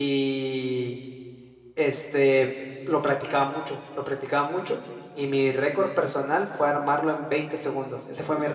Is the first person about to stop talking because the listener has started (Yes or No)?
No